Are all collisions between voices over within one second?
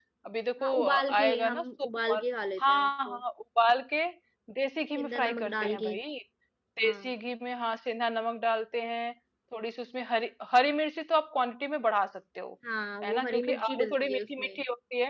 No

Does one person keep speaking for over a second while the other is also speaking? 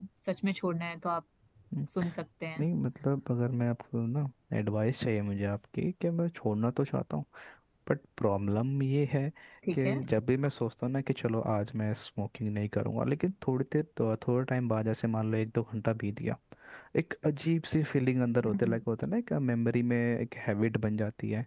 No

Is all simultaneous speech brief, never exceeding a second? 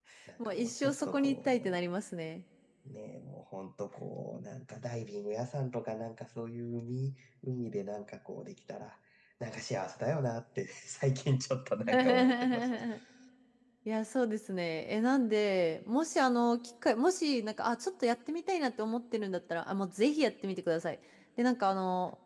No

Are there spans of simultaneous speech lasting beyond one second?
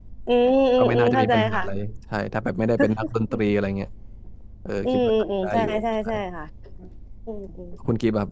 Yes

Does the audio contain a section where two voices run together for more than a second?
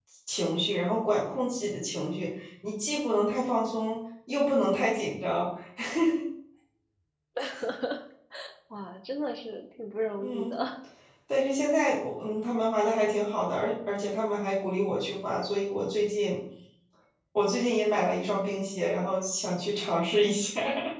No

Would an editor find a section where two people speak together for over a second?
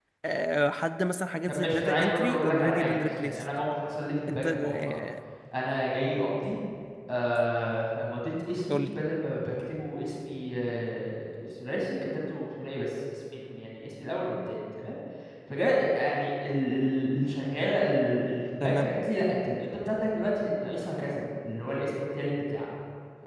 Yes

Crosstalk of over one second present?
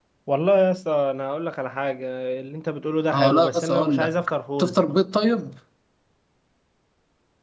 Yes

